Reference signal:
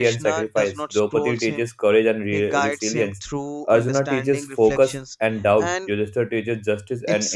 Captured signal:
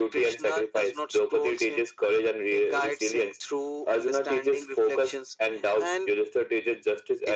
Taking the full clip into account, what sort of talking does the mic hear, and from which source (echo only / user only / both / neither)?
echo only